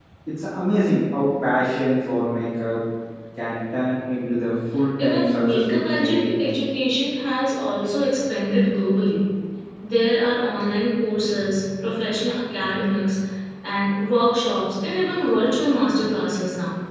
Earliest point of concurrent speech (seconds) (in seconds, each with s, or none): 5.0 s